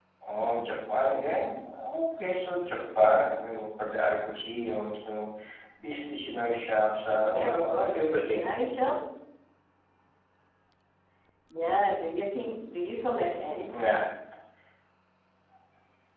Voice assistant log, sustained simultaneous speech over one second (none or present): present